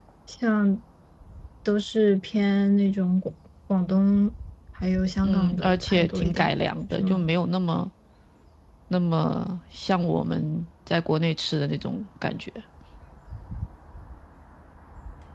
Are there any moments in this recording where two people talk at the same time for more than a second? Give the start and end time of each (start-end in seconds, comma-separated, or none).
5.2-6.5